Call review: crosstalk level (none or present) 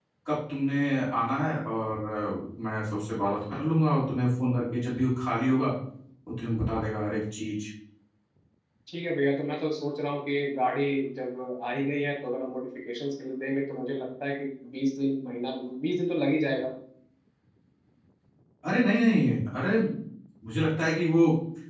none